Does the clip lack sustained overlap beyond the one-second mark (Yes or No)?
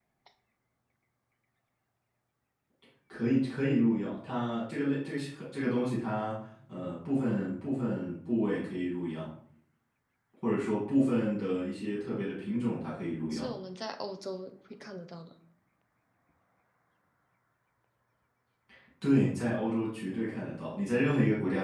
Yes